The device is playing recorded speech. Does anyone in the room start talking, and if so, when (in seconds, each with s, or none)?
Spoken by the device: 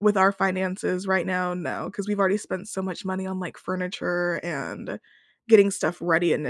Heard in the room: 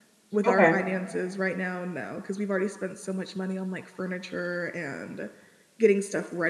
0.4 s